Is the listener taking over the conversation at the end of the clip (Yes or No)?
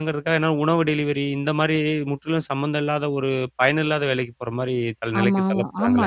Yes